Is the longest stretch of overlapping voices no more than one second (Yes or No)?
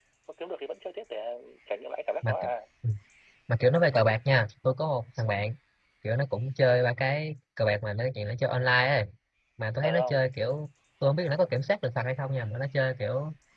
Yes